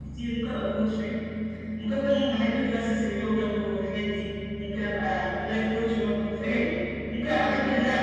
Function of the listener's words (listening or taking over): listening